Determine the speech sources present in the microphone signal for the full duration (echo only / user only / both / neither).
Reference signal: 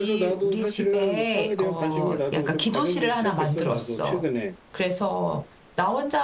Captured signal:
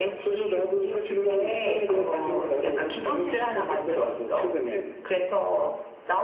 echo only